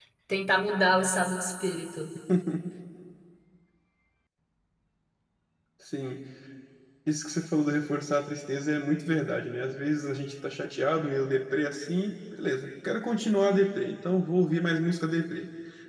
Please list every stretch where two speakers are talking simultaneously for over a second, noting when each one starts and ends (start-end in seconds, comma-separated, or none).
none